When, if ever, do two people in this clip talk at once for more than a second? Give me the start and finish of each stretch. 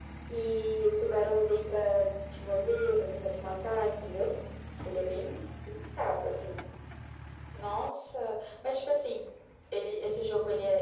none

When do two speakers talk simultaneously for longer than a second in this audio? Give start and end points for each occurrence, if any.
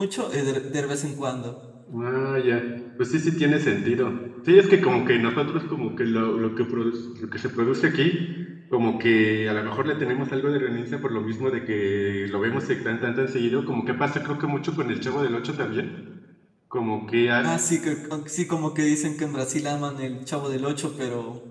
none

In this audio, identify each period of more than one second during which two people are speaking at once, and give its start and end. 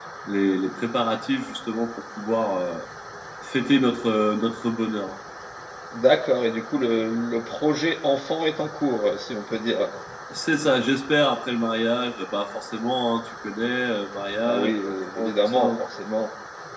14.4-15.7

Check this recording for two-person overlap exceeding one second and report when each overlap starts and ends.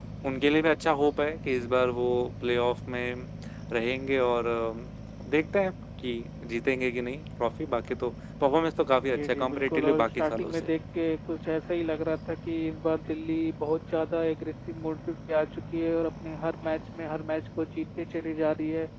9.0-10.7

